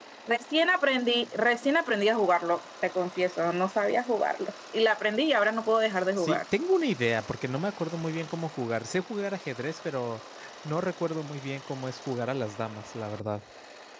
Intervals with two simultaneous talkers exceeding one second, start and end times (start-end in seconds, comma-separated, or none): none